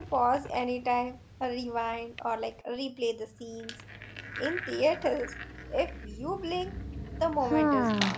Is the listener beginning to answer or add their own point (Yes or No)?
Yes